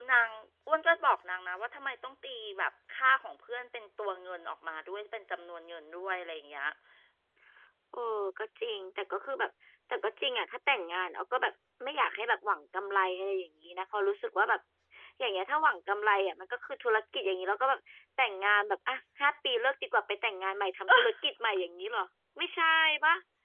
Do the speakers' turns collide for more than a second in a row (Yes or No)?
No